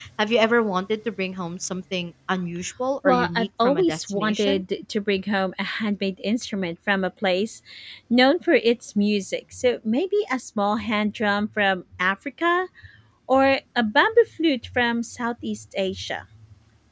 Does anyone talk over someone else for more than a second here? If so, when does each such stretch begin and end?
3.0-4.6

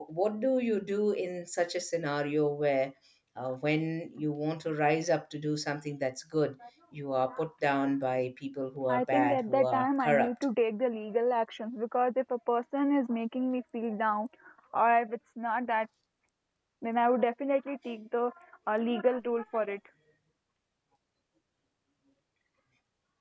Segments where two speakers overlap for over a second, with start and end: 8.9-10.3

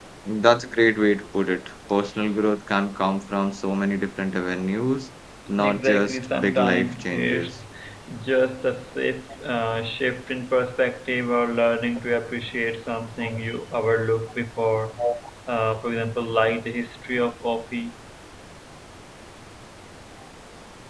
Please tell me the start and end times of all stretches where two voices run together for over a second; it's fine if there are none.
5.6-7.6

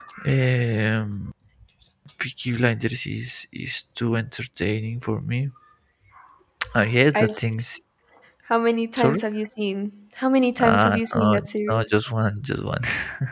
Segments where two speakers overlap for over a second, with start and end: 10.6-11.9

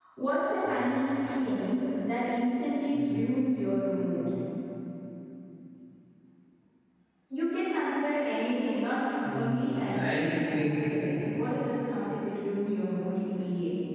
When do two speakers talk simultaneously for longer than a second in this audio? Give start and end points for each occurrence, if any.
9.2-10.8

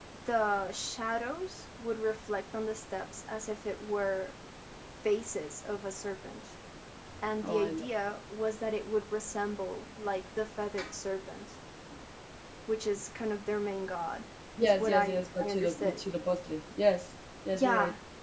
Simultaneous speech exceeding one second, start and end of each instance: 14.6-16.0

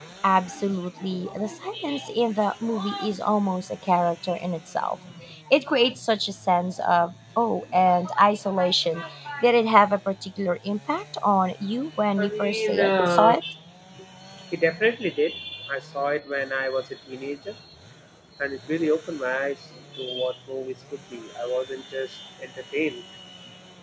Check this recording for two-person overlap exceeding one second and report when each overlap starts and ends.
12.2-13.4

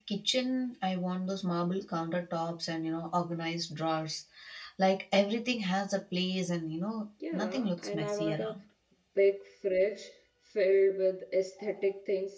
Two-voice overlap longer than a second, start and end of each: 7.3-8.6

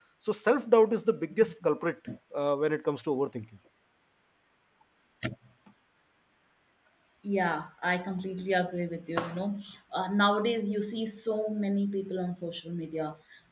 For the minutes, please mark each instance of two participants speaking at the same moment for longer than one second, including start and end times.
none

